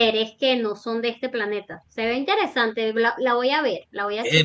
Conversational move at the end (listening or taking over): taking over